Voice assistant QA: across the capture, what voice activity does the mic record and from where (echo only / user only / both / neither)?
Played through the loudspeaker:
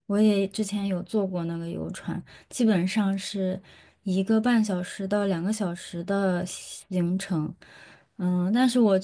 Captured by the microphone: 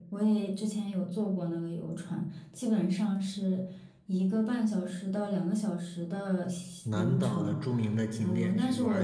both